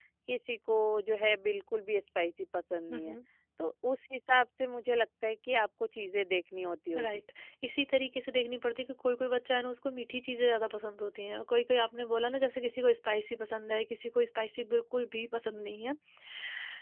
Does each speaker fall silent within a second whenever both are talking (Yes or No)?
Yes